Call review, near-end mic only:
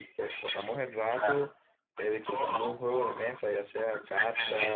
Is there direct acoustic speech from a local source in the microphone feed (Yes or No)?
Yes